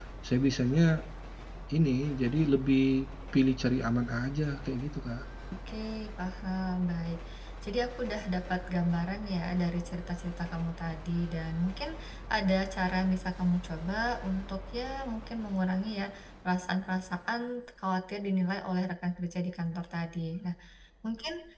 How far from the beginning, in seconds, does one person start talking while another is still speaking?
none

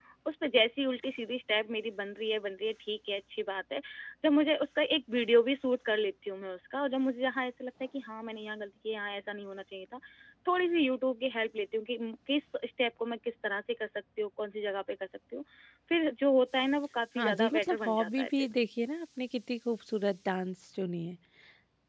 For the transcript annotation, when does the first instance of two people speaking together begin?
17.1 s

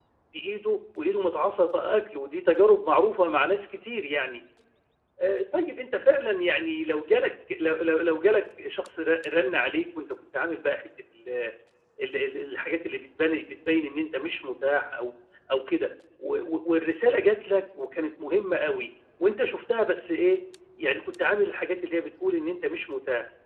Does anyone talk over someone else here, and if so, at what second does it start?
none

